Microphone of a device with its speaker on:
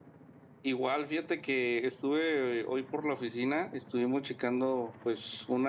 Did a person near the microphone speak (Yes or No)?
Yes